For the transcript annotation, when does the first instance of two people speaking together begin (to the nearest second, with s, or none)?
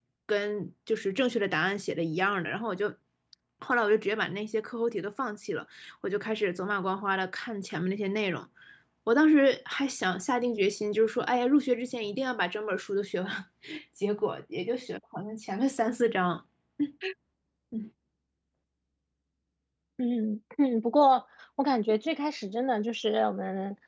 none